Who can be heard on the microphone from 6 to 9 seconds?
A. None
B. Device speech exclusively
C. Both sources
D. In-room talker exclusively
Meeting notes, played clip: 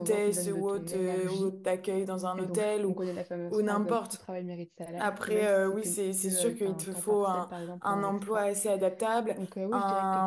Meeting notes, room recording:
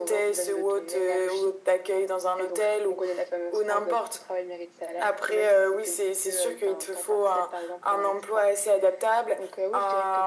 B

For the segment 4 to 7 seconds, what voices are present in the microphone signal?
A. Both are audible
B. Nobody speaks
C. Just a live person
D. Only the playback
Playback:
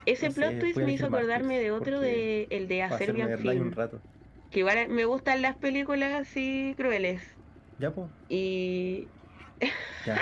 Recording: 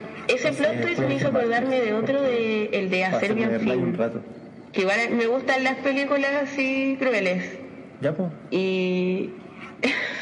D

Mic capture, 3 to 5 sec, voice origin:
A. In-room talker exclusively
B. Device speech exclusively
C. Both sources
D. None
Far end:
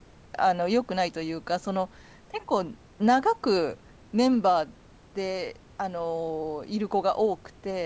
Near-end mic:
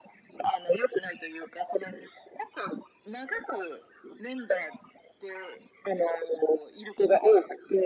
B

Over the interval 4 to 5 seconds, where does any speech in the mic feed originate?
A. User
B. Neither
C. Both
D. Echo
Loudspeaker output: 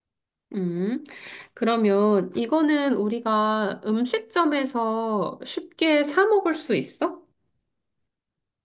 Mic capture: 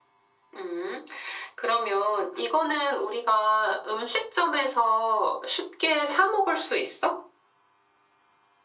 D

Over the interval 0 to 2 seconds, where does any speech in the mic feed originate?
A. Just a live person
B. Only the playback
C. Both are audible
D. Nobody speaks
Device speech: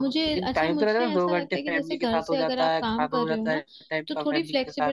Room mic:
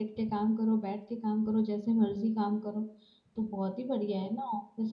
A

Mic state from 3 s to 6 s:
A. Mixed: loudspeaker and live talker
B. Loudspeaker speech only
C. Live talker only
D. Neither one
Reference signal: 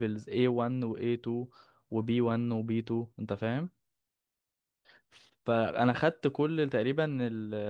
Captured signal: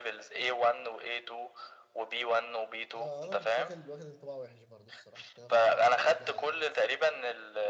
A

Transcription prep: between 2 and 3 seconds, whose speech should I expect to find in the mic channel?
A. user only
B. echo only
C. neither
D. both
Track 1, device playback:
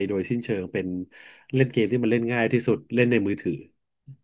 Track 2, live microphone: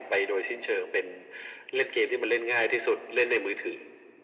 B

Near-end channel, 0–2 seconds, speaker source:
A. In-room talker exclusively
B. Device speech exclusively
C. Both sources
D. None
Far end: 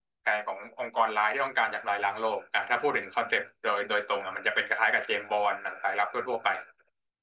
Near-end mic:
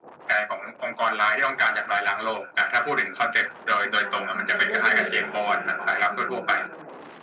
B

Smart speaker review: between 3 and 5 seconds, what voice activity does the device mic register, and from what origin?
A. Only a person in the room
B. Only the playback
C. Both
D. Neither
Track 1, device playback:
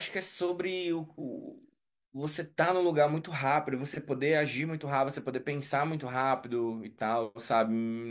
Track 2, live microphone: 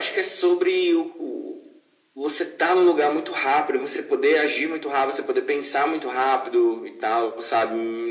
B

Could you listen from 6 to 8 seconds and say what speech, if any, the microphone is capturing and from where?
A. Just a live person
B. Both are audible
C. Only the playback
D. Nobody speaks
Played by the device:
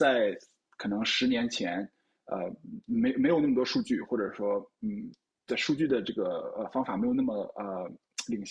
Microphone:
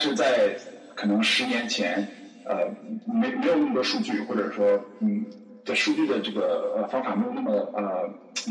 C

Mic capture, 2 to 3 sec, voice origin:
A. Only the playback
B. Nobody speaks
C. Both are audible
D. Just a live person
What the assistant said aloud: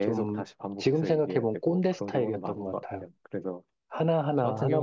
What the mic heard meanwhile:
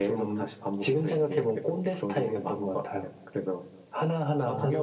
A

